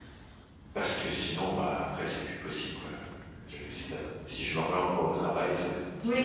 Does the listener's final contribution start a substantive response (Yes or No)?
Yes